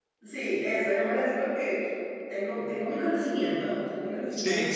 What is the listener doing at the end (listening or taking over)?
taking over